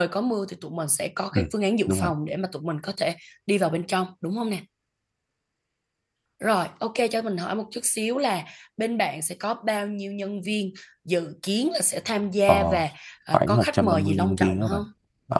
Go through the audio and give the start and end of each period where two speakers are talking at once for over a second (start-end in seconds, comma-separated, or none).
13.3-14.8